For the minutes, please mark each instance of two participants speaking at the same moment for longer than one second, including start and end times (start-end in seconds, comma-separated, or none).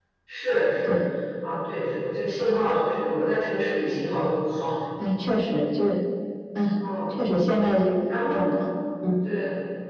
none